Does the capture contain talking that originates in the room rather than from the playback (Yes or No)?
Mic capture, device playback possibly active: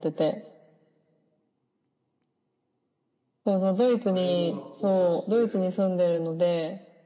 Yes